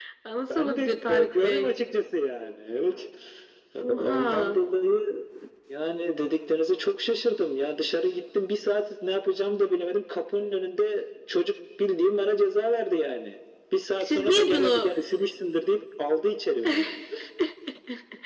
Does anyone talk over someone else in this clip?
Yes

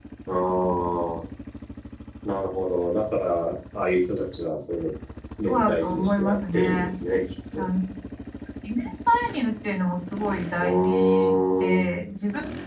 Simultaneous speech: Yes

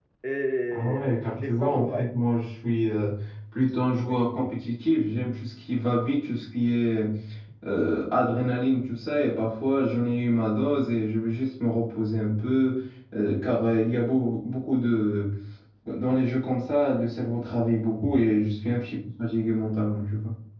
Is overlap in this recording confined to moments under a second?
No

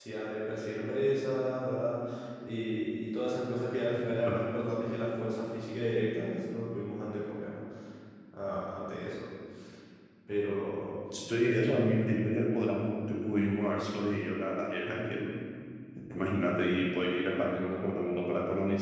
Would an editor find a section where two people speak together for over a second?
No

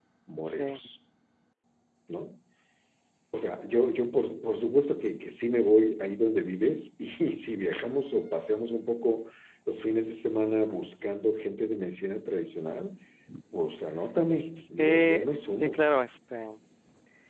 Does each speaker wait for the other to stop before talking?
No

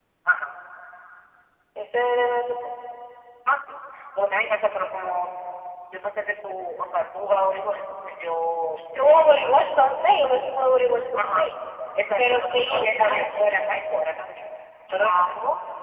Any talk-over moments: Yes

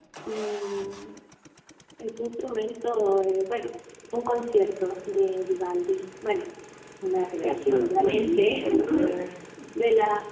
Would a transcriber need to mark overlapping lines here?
Yes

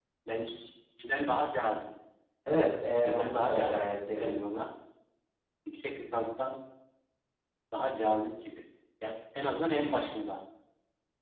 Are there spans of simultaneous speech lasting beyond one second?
Yes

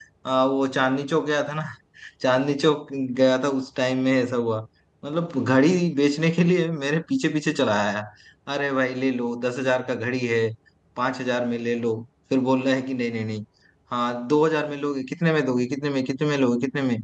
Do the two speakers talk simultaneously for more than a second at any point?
No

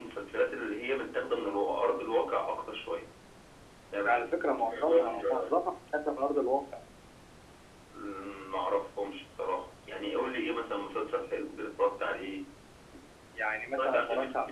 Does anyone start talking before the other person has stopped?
Yes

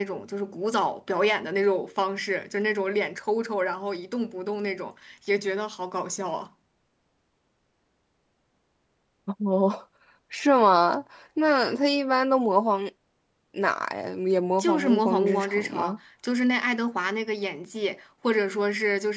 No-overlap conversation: No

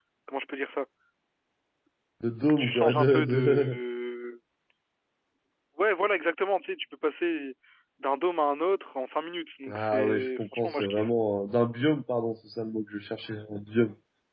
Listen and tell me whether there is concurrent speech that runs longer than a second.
Yes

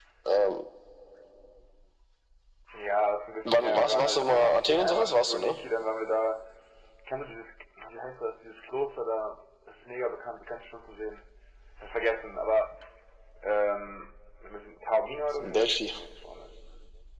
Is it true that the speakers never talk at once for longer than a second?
No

